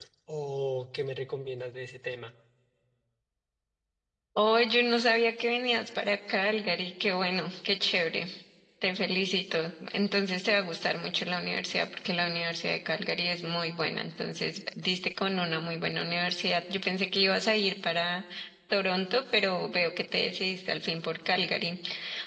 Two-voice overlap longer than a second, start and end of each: none

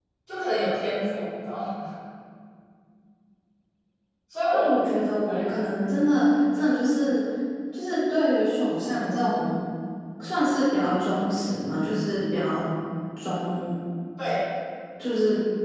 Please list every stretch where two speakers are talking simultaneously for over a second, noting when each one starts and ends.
none

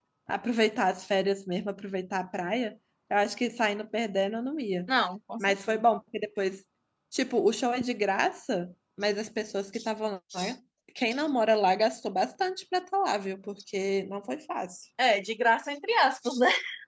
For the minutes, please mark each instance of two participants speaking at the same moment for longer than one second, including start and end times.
none

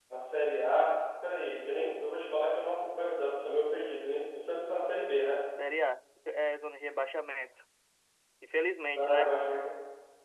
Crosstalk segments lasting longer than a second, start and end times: none

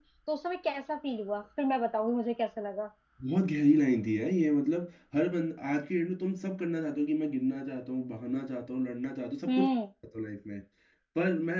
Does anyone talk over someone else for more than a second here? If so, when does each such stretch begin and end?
none

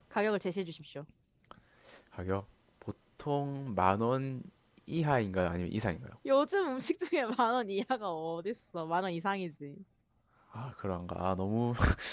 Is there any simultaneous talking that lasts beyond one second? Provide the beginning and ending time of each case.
none

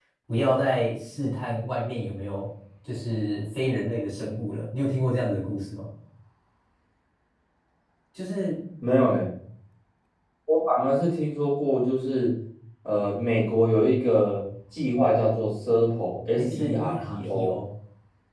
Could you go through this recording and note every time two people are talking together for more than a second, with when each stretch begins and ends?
16.3-17.5

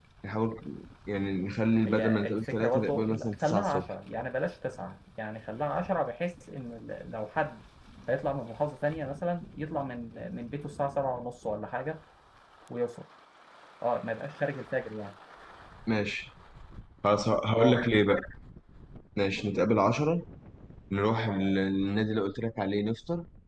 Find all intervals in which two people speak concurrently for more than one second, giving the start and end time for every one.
1.9-3.8

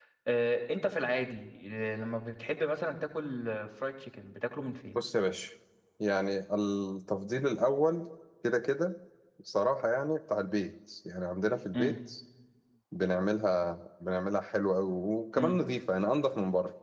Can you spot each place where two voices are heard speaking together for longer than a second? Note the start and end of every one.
none

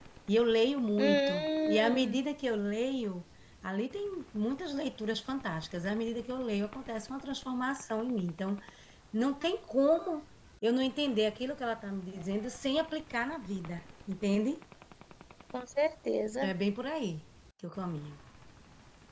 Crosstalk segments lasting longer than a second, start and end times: 1.0-2.2

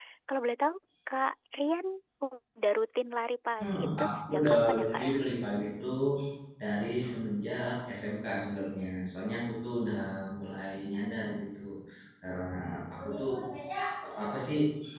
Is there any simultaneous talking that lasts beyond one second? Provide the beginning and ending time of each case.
3.6-5.1

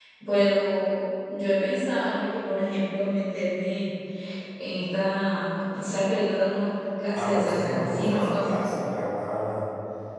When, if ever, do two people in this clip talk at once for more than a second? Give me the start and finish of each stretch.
7.1-8.6

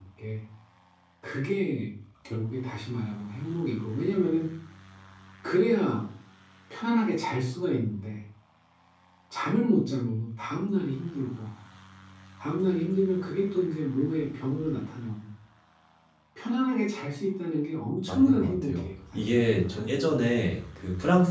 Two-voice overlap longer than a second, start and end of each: 18.1-19.8

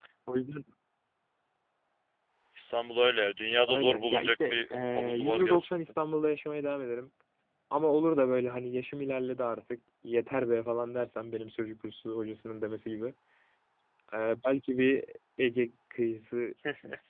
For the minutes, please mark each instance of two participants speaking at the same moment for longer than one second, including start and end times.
3.7-5.7

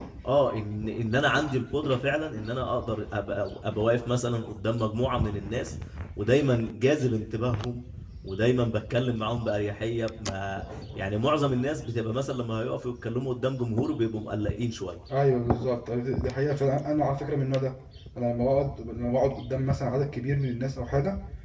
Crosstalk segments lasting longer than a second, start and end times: none

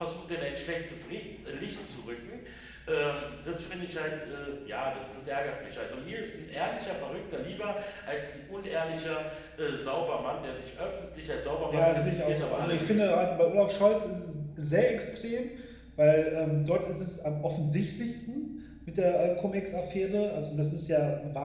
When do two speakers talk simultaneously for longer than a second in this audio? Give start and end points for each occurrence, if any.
11.7-13.1

